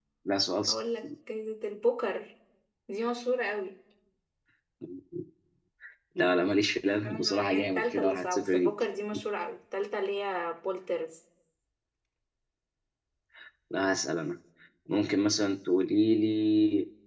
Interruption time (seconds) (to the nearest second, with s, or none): 7 s